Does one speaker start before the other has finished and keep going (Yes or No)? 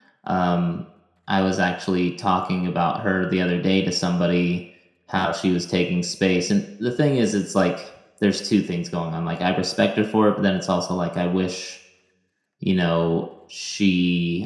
No